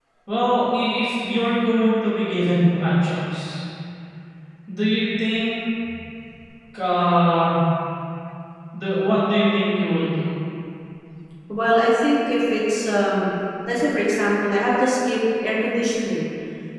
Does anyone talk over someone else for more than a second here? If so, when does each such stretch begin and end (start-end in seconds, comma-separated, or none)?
none